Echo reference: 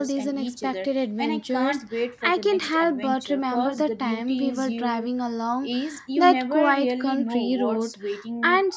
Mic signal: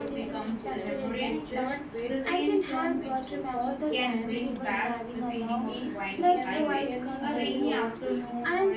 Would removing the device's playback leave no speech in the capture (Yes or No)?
No